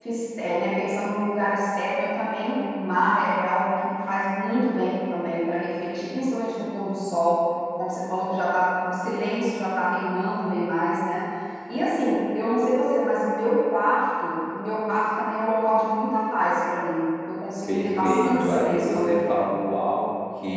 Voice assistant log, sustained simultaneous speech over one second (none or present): present